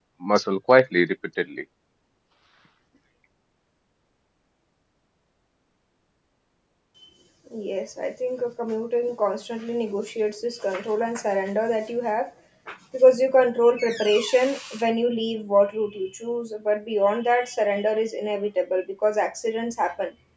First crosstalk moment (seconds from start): none

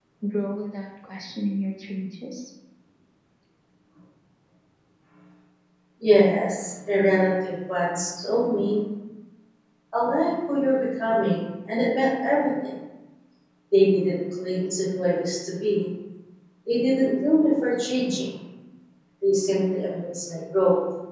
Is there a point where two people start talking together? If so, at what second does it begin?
none

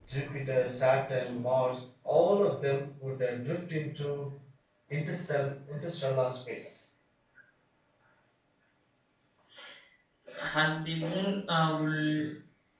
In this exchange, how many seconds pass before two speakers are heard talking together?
none

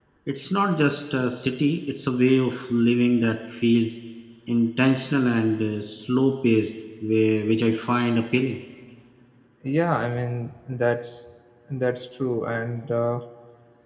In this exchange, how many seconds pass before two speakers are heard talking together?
none

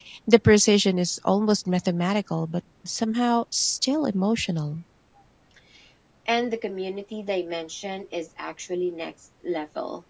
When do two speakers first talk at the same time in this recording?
none

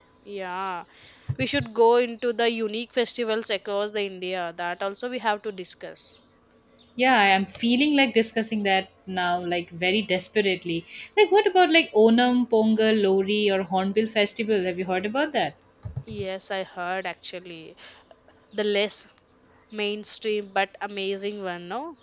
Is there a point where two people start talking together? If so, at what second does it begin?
none

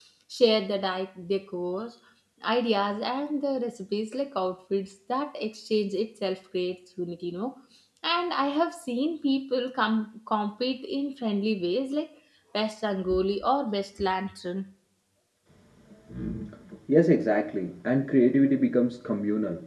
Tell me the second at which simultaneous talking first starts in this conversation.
none

